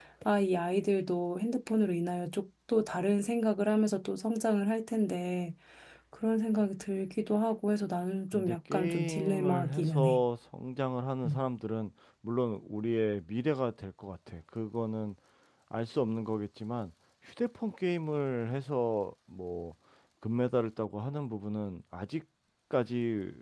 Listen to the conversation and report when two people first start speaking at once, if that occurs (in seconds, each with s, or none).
8.3 s